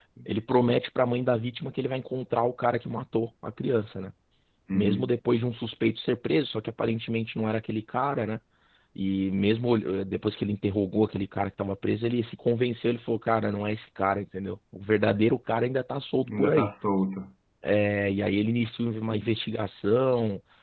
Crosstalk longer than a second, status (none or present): none